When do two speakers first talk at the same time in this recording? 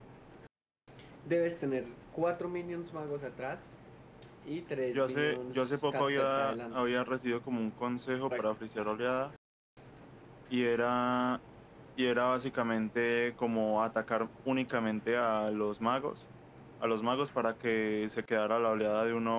4.9 s

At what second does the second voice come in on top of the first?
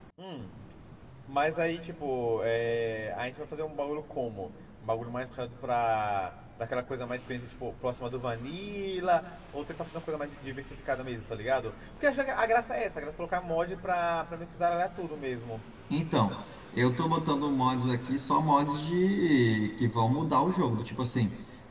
none

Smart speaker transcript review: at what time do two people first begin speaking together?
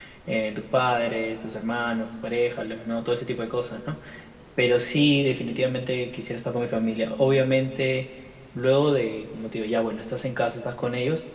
none

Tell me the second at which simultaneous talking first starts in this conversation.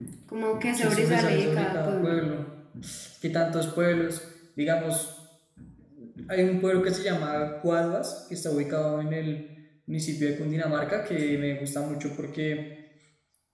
0.7 s

